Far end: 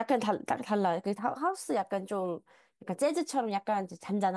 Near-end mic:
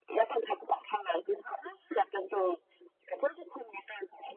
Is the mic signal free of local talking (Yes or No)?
Yes